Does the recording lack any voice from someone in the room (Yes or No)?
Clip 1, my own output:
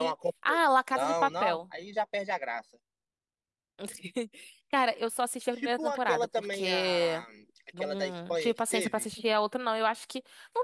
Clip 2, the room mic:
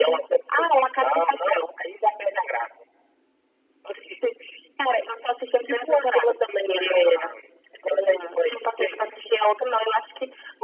Yes